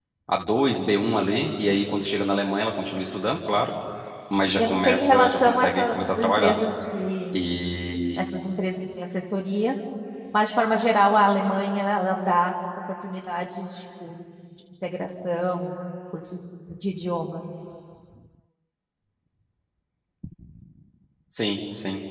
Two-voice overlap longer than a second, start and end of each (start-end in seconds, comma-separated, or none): 4.6-6.6